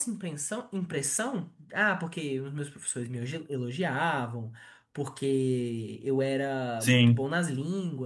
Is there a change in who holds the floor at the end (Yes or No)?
No